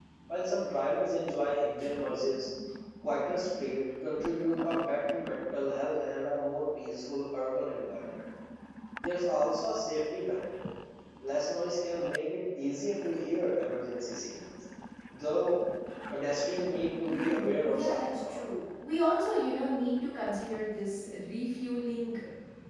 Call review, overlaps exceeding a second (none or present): present